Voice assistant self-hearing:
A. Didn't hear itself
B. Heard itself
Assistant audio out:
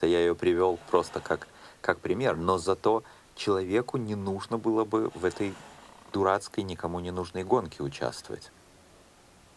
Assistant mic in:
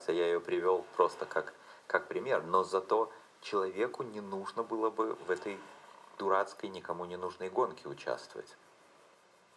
B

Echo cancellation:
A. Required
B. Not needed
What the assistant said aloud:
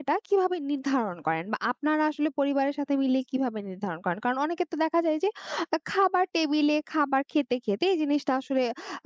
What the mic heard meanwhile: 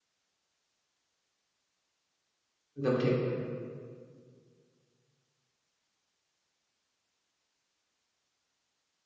B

